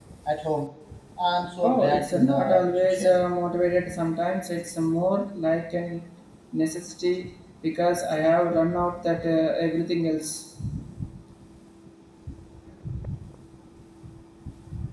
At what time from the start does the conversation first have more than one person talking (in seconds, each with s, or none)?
1.6 s